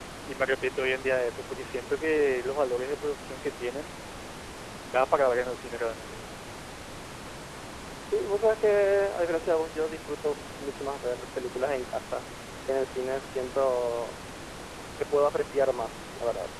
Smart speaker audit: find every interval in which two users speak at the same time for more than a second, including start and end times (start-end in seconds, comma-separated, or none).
none